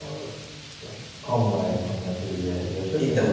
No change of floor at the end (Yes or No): No